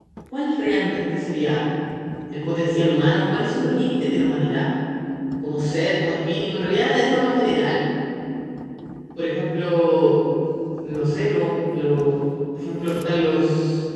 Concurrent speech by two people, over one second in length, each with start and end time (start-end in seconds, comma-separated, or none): none